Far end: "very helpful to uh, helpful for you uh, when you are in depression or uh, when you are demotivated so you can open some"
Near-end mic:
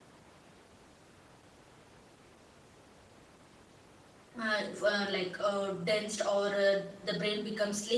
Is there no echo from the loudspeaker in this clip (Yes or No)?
Yes